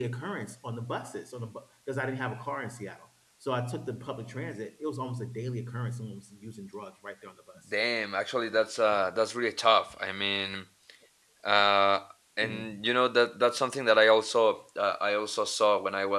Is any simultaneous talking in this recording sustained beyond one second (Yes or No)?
No